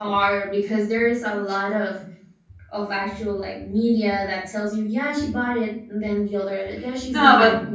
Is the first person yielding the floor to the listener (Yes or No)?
Yes